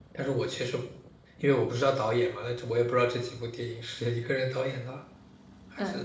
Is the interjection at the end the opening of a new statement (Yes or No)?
Yes